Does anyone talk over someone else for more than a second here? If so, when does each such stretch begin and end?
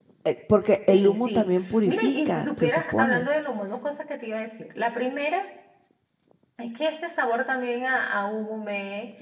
0.9-3.3

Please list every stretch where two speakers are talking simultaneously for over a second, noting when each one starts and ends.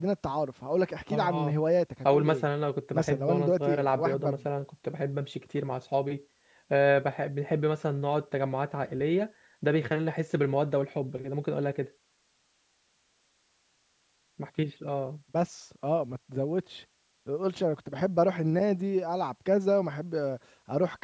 2.9-4.4

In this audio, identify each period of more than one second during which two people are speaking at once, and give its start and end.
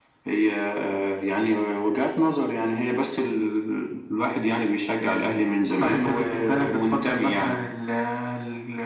5.8-7.6

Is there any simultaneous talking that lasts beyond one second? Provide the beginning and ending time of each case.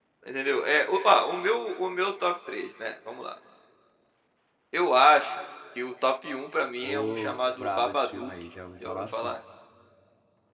6.8-8.3

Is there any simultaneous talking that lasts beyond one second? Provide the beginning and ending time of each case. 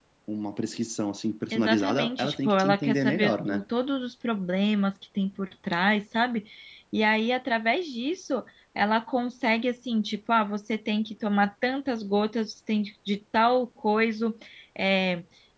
1.5-3.6

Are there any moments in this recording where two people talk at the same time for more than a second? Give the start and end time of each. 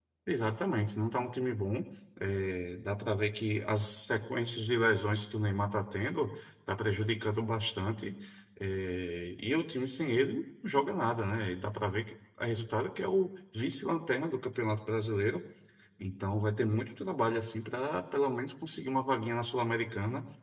none

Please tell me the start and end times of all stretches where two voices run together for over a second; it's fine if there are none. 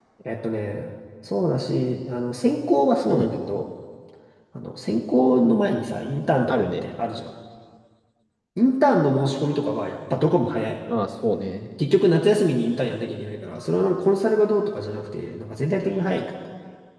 none

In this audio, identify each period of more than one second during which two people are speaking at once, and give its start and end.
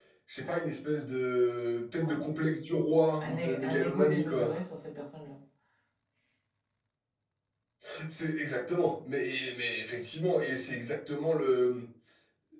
3.3-4.5

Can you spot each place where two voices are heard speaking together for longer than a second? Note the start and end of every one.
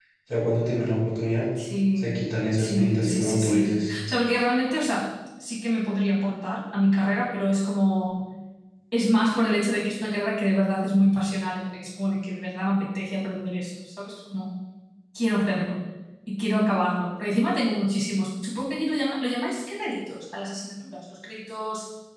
2.6-3.9

